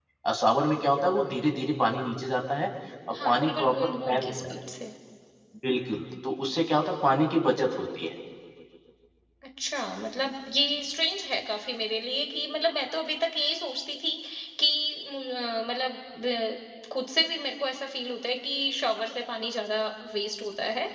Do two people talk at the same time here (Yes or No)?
Yes